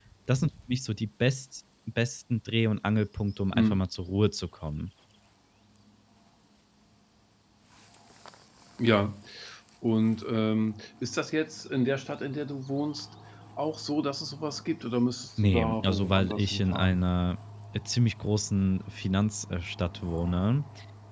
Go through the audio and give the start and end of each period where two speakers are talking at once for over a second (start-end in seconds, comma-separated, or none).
15.4-17.1